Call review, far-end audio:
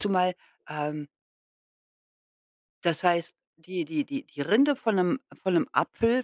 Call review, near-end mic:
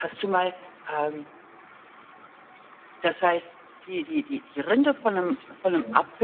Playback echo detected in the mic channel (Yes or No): Yes